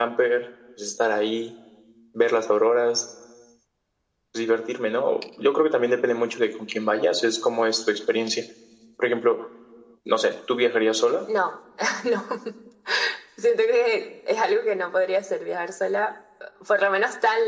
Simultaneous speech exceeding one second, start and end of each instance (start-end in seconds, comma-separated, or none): none